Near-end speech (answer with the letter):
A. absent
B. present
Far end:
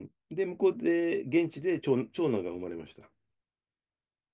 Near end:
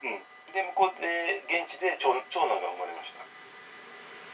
A